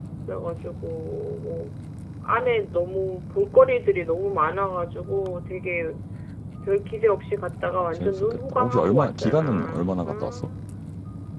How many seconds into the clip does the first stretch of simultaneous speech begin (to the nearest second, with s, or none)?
8 s